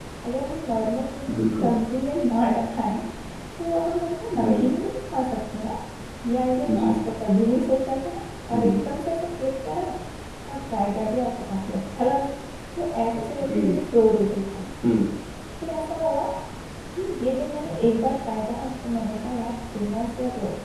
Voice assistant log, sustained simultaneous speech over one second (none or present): none